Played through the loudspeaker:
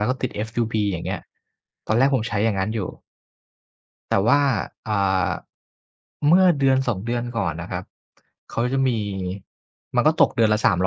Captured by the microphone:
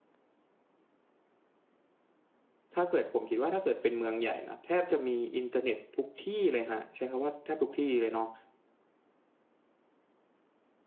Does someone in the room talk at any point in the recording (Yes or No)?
Yes